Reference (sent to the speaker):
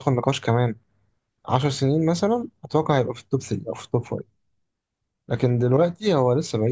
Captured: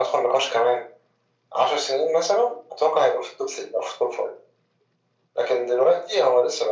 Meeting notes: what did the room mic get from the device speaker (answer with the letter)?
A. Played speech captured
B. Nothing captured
A